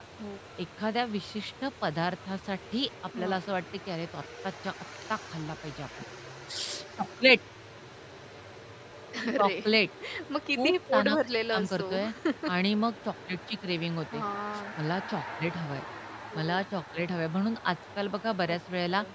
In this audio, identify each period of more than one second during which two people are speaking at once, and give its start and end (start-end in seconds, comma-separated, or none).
10.6-11.8